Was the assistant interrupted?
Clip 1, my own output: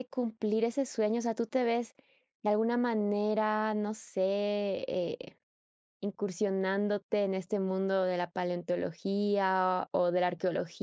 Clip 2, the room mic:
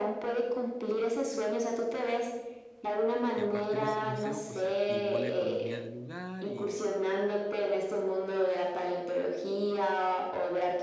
Yes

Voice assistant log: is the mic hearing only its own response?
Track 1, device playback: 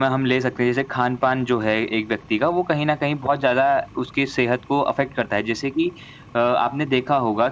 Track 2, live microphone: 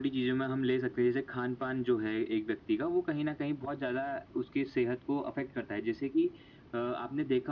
Yes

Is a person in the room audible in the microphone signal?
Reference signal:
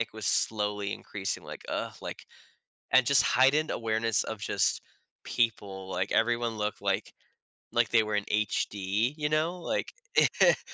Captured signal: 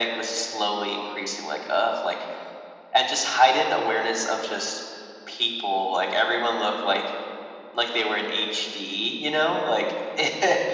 No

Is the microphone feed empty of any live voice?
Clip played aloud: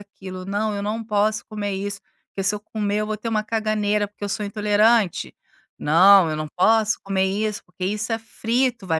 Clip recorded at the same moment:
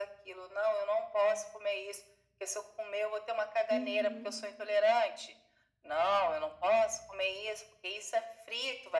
No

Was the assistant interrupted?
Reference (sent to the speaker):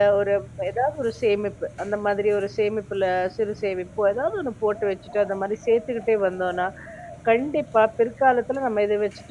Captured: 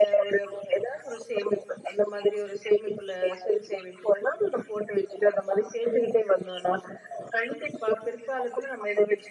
No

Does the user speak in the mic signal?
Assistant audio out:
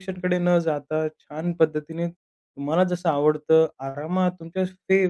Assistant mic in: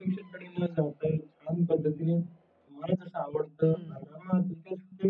Yes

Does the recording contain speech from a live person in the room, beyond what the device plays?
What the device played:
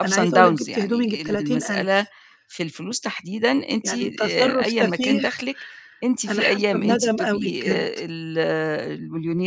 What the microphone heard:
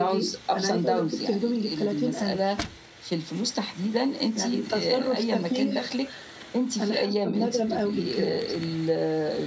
No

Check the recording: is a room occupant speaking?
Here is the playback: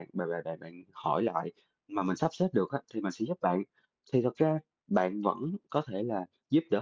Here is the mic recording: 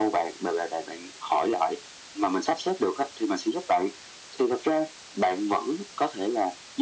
No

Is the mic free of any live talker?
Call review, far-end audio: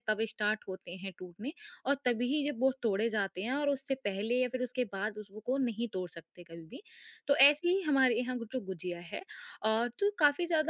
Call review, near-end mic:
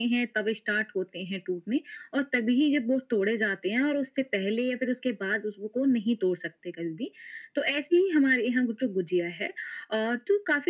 Yes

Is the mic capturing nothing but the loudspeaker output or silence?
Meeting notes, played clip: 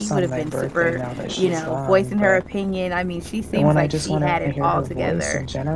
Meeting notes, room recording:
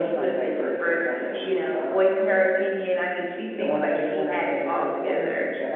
Yes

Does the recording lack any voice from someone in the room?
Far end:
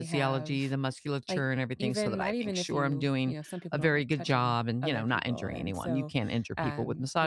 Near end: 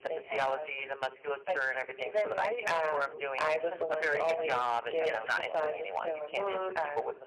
No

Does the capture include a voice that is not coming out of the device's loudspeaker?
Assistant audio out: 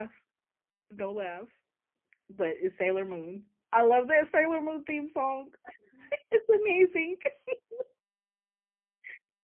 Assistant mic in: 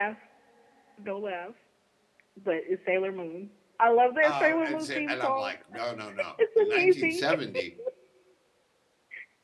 Yes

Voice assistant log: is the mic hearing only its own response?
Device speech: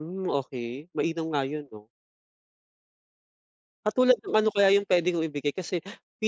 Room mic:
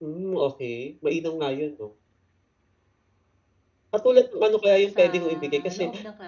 No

